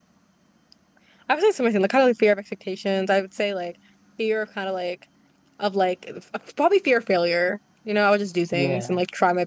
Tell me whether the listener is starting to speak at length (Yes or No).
No